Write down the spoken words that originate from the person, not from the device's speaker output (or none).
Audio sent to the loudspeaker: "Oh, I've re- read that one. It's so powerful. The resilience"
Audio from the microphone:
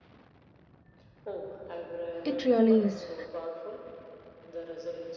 It really is.